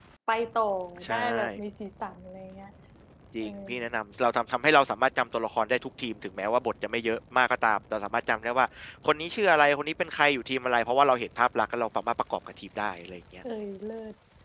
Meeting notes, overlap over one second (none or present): none